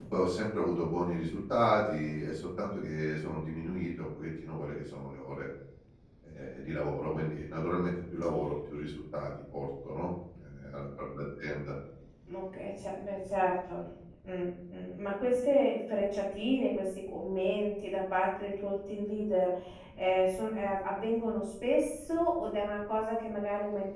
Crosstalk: none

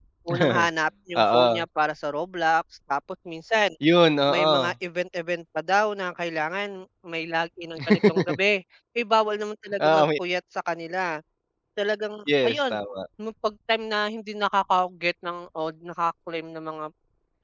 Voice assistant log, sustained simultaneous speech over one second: none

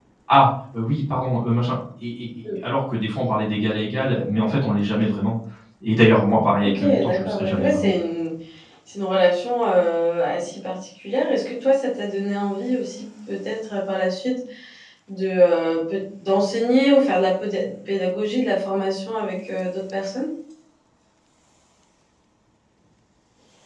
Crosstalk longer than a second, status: present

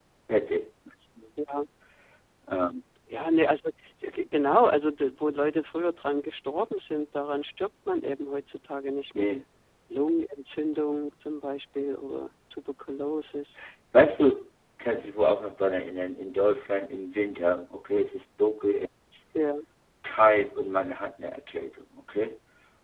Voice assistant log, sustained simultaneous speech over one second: none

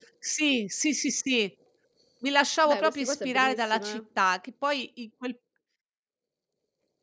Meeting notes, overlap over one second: present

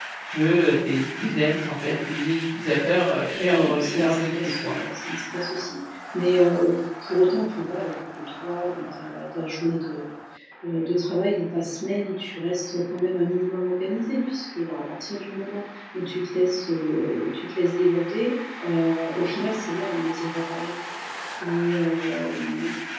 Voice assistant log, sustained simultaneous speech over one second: present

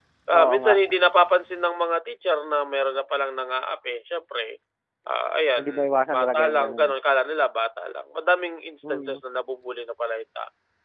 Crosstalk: present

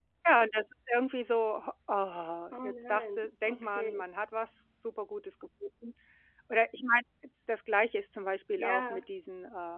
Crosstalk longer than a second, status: present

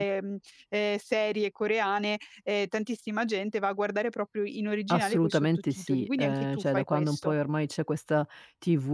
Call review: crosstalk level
present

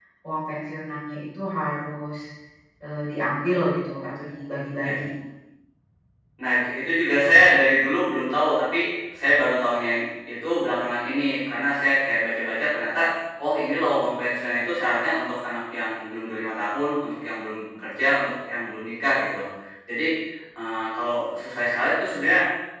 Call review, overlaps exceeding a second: none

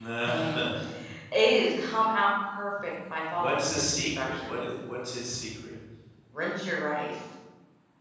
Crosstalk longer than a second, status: present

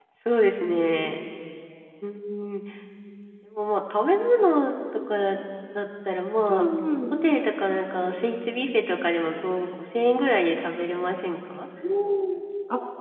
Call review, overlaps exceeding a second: none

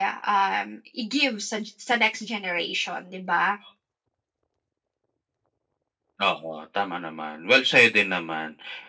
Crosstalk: none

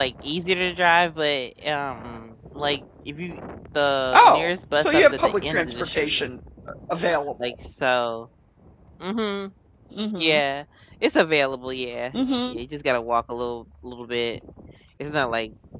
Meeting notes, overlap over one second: present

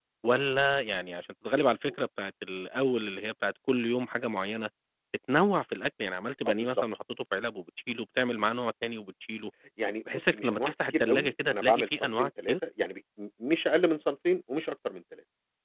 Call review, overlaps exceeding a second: present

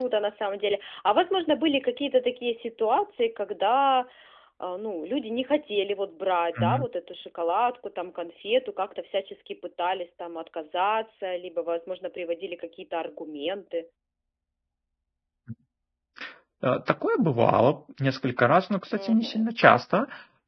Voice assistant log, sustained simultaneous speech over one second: none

